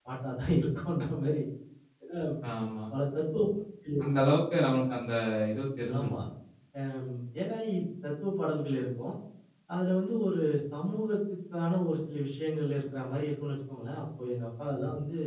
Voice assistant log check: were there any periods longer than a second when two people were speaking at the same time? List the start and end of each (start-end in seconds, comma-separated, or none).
none